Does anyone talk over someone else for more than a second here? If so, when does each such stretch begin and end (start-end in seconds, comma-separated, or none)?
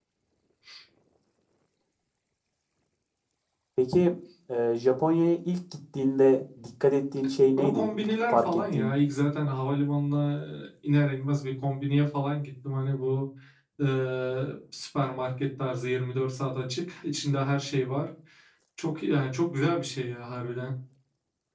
7.6-8.9